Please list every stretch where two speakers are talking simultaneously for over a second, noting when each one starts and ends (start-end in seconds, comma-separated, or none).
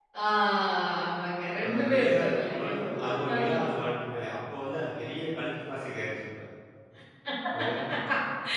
1.6-3.6